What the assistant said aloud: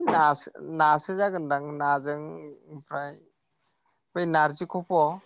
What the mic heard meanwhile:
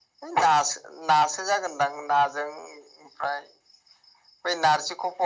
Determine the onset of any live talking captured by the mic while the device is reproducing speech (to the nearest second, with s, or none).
none